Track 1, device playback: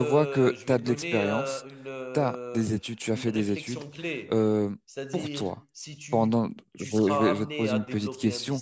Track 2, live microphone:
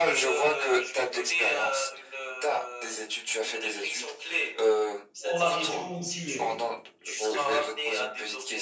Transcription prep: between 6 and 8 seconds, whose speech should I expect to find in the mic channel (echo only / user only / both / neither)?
both